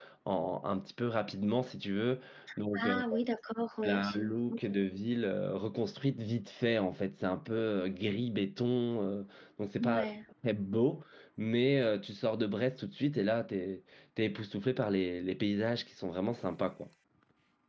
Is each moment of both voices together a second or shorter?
Yes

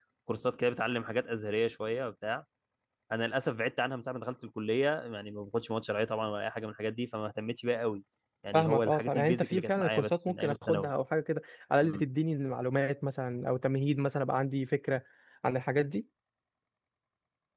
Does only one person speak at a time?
No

